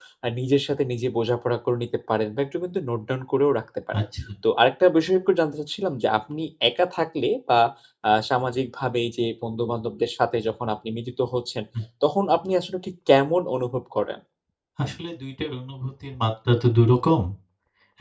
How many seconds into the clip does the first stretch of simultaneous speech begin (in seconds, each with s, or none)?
none